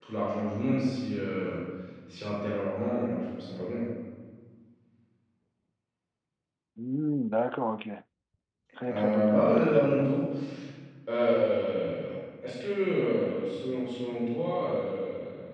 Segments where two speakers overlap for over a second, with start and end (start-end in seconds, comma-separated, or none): 8.9-10.1